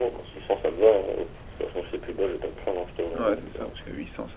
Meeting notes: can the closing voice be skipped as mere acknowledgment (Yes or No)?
No